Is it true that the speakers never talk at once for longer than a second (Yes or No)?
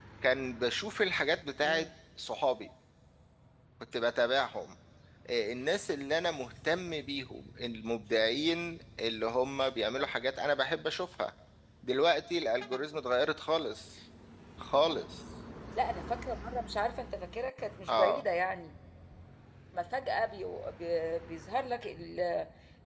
Yes